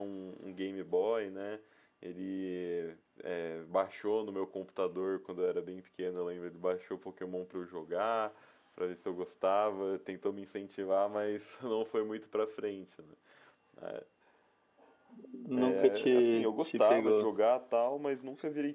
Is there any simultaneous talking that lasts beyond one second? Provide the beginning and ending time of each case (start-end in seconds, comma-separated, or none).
15.5-17.3